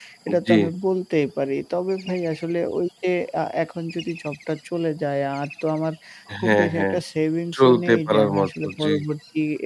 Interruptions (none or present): present